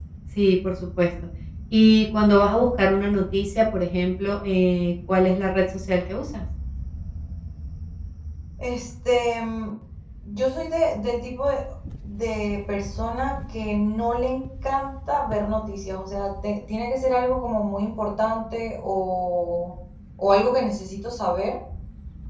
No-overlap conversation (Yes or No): Yes